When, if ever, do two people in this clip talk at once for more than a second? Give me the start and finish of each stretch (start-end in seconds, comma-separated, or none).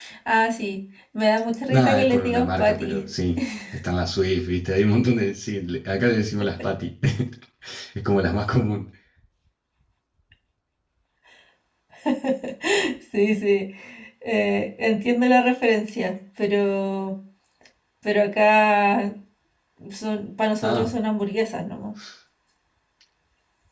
1.7-3.0